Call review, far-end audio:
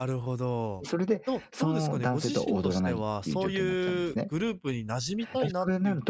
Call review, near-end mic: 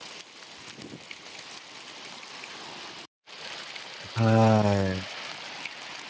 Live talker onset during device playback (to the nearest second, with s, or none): 4 s